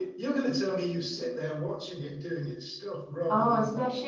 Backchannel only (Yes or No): No